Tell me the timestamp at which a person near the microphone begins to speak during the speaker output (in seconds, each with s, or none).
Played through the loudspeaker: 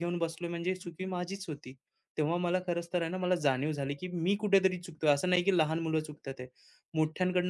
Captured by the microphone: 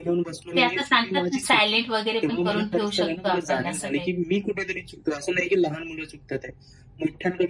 0.6 s